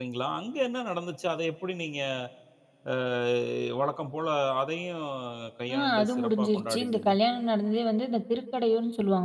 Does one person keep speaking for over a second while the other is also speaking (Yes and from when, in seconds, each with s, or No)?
Yes, from 5.7 s